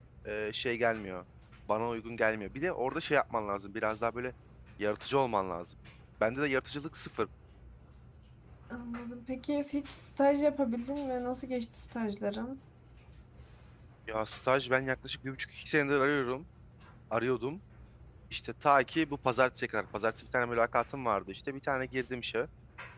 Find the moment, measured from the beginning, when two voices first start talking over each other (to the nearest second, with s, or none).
none